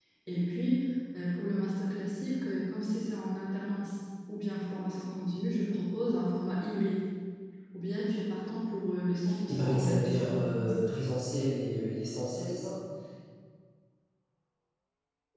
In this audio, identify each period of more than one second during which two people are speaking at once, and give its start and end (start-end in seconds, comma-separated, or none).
9.5-10.7